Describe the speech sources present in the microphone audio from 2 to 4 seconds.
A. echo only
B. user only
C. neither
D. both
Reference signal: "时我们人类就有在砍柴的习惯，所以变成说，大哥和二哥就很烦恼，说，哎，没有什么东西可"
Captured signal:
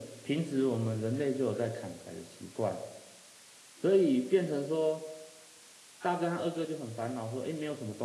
A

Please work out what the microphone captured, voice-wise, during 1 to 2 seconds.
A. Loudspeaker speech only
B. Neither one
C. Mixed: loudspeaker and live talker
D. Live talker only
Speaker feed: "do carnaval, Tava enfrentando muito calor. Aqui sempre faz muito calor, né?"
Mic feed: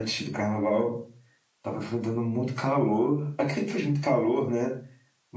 A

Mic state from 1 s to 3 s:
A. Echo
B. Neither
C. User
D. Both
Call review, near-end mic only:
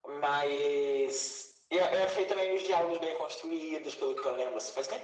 A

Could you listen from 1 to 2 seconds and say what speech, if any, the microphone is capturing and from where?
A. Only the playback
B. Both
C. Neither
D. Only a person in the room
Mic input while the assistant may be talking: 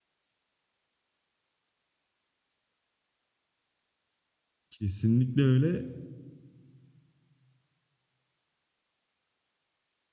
C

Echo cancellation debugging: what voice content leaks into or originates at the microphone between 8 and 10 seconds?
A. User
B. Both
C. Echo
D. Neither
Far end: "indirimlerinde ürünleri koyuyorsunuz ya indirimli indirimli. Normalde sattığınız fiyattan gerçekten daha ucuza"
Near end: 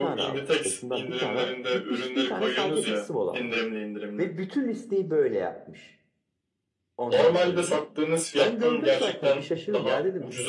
B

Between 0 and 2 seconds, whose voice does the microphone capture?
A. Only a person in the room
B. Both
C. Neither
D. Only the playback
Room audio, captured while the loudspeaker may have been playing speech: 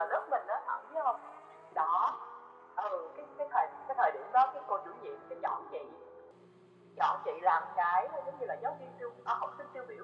D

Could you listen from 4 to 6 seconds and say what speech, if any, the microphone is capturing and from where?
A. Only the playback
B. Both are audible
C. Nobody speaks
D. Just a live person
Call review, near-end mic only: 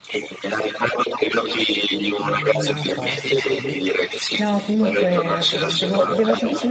B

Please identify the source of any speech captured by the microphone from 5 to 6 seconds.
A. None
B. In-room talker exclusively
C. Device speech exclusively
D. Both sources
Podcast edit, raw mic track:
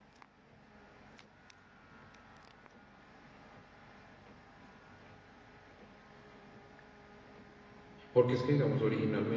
A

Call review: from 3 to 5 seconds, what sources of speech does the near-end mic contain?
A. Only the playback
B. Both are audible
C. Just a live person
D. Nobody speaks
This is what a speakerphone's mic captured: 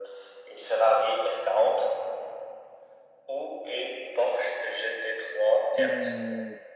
A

